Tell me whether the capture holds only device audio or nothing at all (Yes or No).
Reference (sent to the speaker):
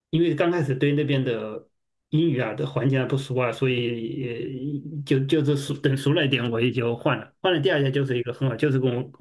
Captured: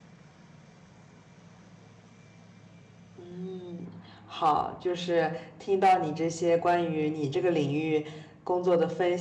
No